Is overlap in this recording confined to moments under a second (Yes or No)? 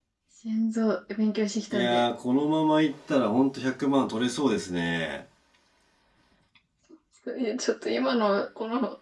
Yes